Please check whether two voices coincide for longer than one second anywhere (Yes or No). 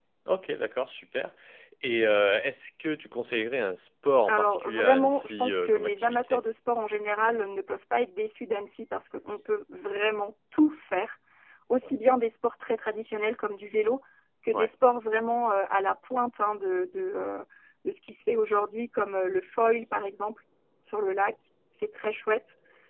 Yes